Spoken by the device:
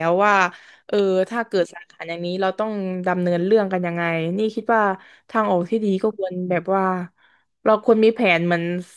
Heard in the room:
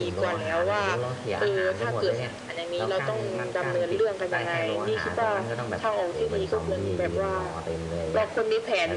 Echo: present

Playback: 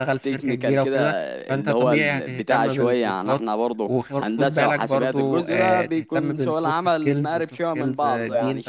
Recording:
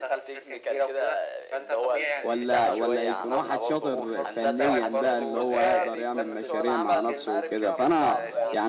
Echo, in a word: present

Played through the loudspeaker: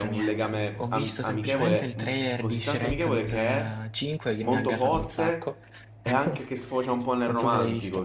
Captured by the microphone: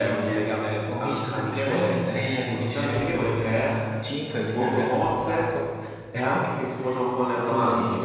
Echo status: present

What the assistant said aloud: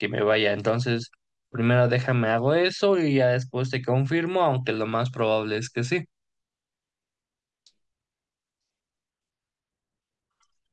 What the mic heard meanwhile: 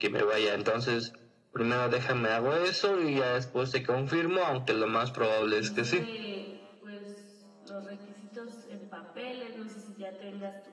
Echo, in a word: present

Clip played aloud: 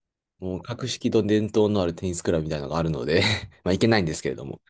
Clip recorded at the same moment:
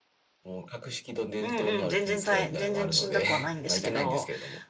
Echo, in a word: present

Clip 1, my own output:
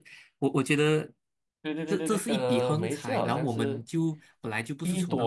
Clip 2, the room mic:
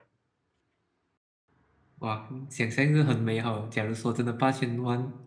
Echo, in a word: none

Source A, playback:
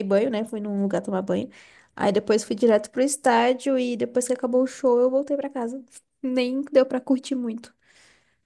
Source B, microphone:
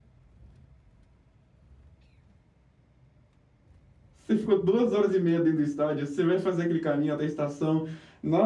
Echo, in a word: none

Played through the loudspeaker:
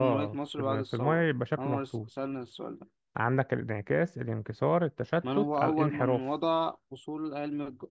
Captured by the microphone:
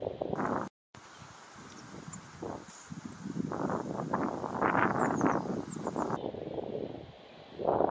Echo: none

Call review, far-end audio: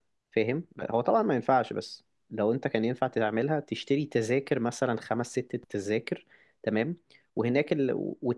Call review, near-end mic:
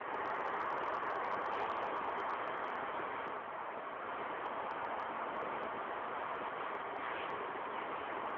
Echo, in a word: none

